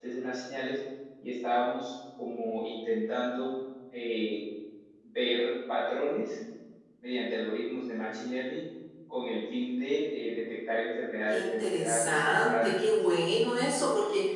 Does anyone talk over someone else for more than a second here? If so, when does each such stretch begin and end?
11.3-12.8

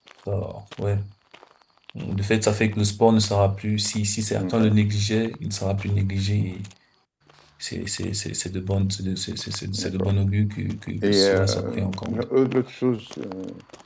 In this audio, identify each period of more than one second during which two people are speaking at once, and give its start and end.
11.0-12.2

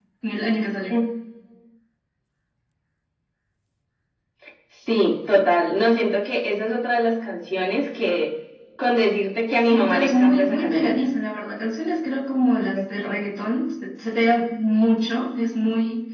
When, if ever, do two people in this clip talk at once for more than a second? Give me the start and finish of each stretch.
9.6-11.0

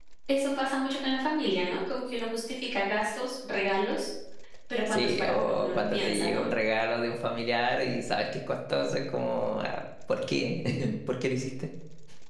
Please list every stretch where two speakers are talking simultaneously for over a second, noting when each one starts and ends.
4.9-6.4

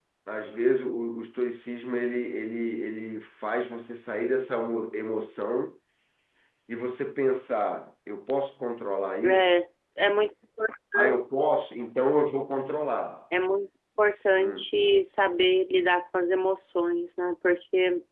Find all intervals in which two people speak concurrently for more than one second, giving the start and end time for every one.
none

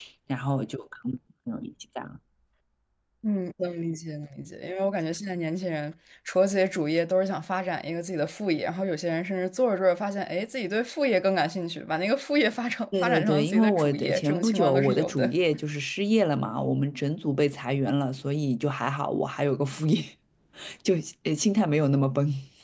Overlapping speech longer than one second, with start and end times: 13.0-15.3

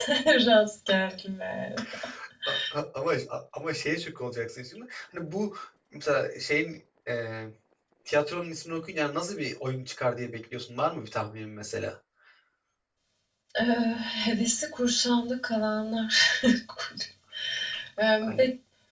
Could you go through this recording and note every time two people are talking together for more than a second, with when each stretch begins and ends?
none

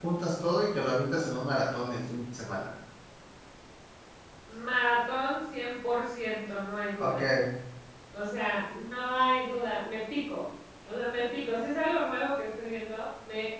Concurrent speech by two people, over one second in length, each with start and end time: none

